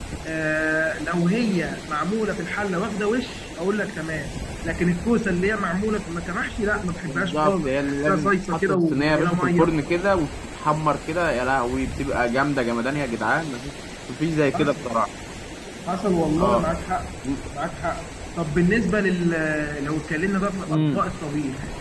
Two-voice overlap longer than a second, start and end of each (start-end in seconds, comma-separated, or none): 7.1-9.7